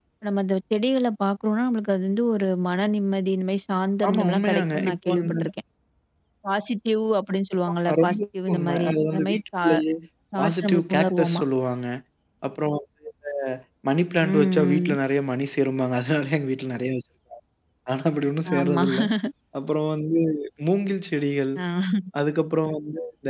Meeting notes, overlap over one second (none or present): present